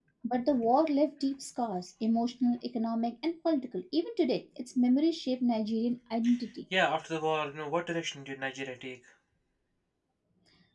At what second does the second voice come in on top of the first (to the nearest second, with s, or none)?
none